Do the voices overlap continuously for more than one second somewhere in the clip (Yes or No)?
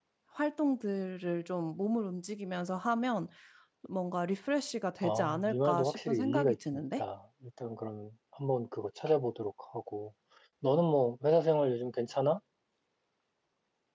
Yes